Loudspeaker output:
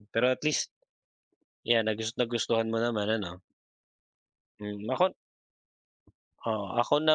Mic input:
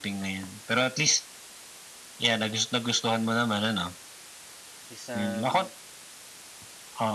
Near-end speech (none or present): present